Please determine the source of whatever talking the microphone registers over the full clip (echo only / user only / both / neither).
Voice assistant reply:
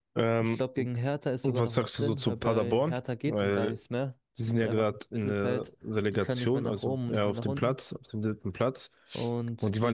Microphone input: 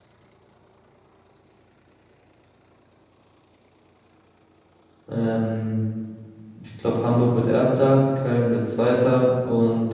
user only